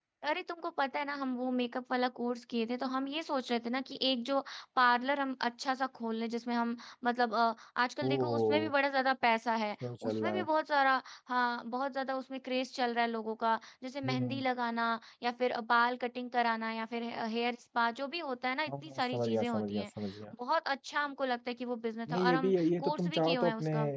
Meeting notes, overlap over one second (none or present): present